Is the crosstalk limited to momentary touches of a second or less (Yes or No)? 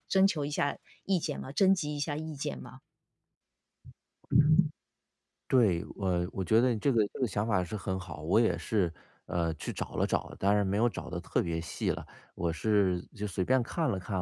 Yes